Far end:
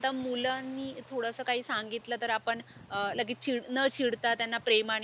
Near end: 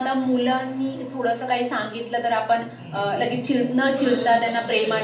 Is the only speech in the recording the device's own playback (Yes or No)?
No